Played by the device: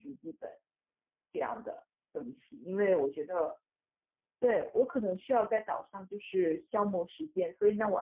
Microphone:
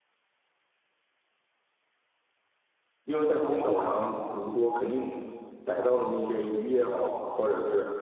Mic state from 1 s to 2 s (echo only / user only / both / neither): neither